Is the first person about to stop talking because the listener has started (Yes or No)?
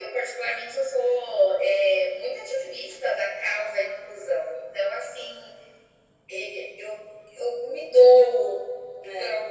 No